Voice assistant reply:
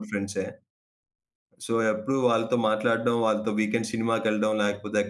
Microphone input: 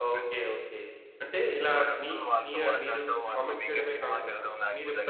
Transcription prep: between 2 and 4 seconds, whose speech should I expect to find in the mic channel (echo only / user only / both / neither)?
both